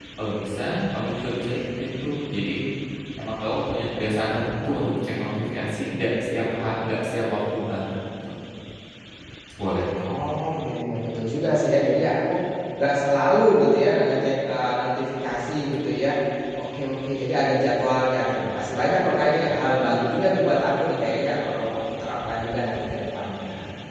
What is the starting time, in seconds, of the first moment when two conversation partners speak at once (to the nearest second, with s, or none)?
none